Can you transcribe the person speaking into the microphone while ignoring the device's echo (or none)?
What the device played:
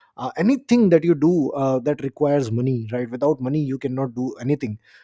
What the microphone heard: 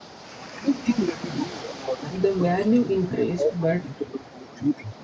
the value increased, but